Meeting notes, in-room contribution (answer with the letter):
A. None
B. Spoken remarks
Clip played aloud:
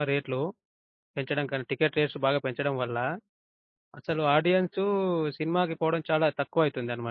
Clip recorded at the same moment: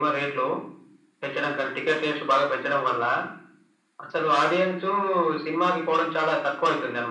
A